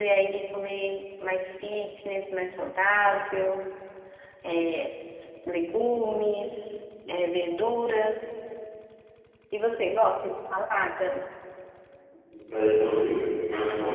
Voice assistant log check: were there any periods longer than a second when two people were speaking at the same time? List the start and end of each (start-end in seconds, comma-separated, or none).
none